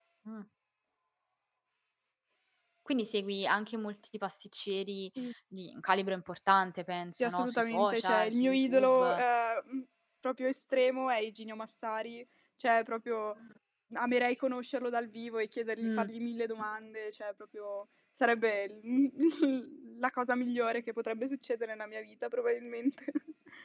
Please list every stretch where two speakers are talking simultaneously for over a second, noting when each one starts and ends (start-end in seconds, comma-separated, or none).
7.2-9.2